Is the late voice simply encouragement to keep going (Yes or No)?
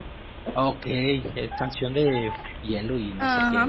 No